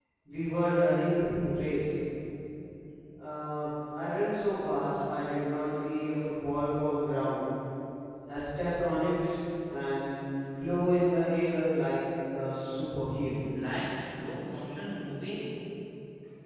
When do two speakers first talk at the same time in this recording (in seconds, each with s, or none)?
none